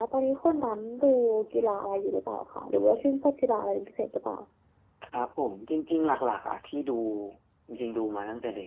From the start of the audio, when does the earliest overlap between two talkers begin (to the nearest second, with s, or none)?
none